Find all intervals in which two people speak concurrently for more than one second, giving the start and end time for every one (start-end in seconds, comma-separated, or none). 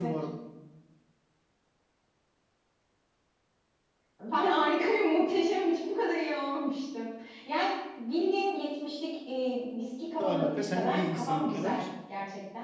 10.2-11.8